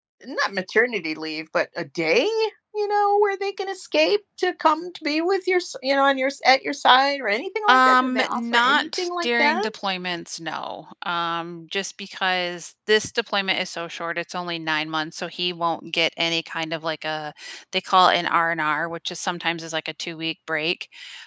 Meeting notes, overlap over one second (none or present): present